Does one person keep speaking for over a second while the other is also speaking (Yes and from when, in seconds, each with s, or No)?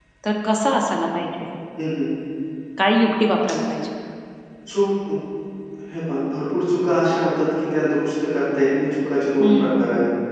No